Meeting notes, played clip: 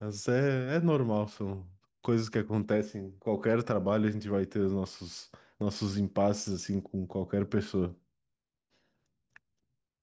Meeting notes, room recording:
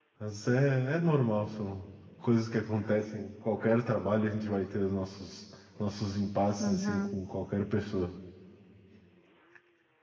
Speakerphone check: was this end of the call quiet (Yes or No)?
No